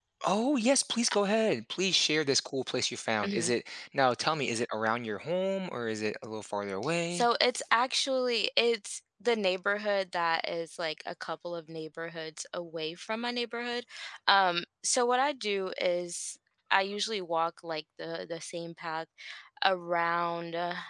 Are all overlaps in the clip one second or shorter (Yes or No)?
Yes